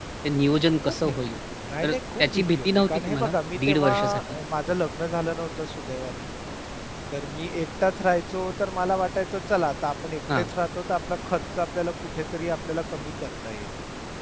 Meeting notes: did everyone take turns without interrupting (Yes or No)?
No